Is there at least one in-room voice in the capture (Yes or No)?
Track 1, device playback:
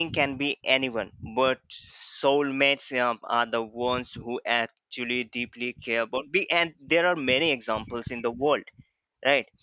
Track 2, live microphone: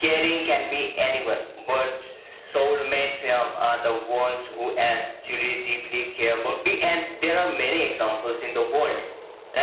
No